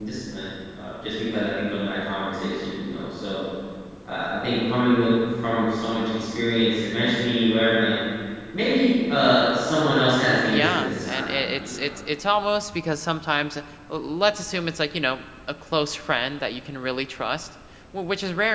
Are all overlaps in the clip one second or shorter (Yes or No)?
No